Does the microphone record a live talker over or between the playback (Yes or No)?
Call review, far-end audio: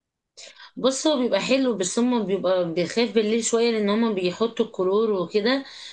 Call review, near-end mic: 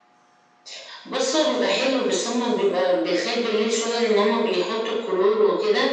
No